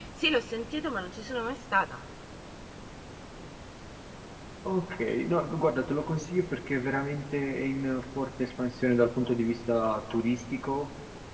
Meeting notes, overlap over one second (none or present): none